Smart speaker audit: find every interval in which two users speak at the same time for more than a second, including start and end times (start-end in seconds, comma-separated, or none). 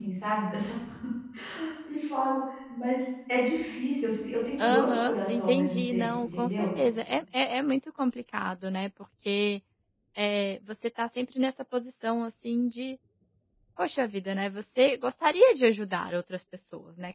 4.6-6.7